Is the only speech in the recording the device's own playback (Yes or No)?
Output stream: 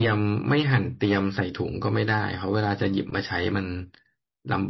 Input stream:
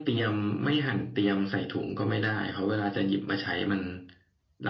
Yes